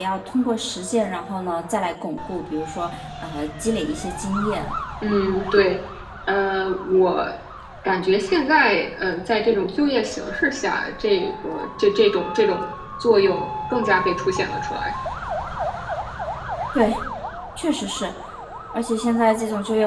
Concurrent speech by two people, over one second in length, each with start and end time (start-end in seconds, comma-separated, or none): none